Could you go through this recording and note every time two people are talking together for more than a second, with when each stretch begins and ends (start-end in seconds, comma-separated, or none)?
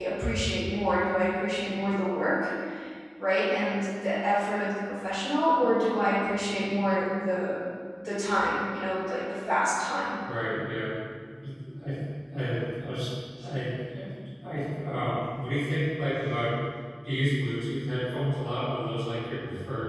none